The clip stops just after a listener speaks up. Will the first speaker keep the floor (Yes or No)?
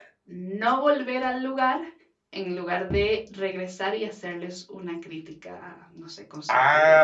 No